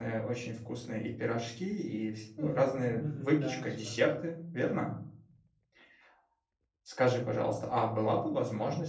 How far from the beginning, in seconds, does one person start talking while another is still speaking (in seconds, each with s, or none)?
2.4 s